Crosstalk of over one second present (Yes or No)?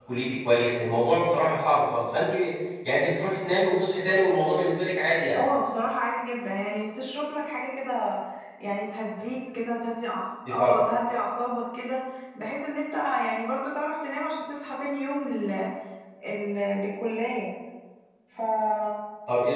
No